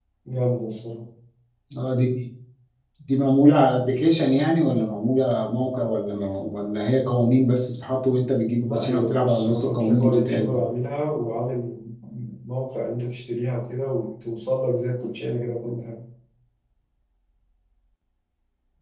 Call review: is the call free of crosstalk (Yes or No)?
No